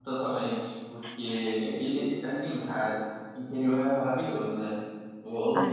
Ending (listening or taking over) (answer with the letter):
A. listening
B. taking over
A